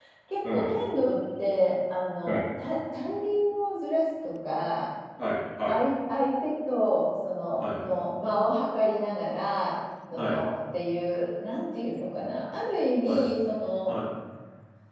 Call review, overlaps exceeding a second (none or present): none